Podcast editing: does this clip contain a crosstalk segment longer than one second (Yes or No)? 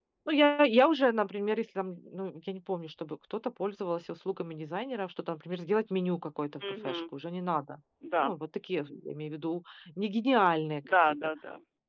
No